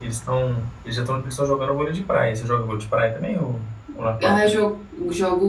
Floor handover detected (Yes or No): Yes